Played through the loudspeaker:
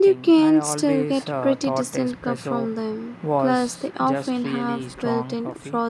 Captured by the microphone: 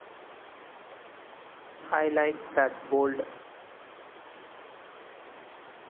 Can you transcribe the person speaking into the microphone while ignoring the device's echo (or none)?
I like that bold